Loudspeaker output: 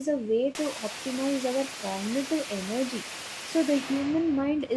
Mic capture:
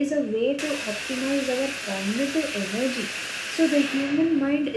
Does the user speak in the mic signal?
No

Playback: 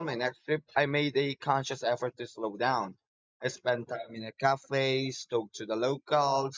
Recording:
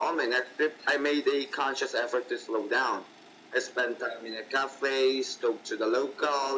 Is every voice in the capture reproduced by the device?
Yes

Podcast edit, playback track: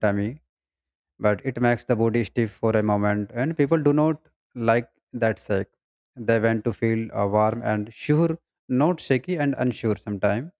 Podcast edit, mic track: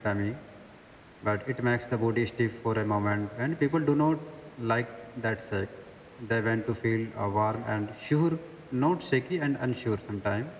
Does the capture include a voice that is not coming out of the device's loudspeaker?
No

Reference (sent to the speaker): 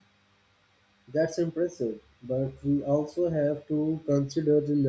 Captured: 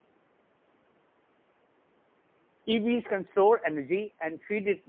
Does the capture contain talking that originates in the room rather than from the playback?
Yes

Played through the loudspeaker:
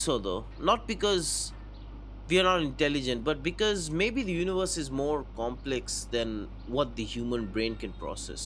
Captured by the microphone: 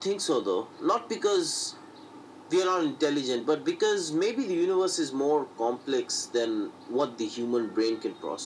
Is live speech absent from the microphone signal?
Yes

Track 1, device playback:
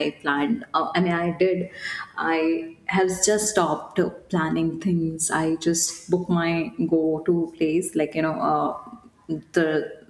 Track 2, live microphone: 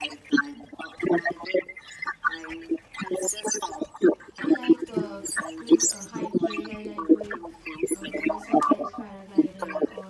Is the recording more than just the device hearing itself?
Yes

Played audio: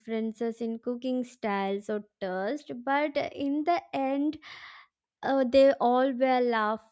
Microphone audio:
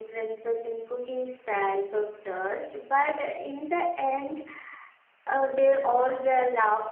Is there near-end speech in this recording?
No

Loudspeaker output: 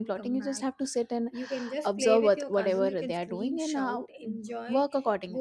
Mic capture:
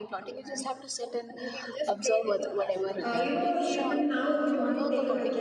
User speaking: Yes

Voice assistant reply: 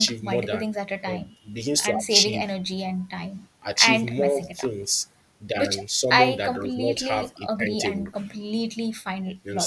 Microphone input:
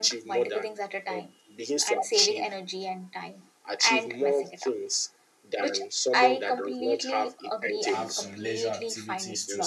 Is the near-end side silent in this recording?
No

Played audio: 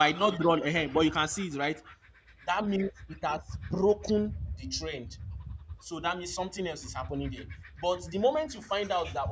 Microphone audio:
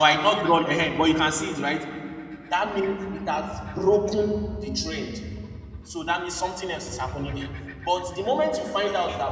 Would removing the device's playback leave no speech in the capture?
Yes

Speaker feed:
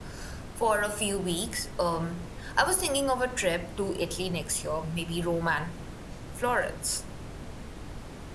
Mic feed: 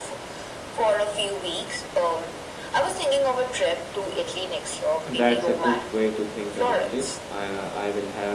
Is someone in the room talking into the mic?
Yes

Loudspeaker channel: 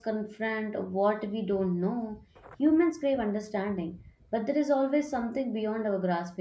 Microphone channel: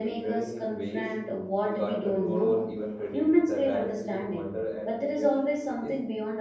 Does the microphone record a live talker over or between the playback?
Yes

